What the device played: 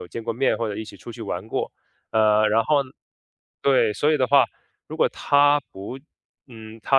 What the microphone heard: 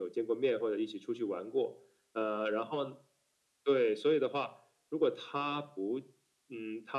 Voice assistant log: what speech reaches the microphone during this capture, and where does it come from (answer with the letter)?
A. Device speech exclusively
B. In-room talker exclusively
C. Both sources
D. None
A